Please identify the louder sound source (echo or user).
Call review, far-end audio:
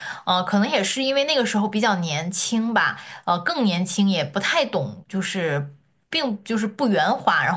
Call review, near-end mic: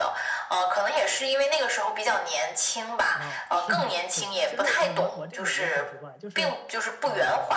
echo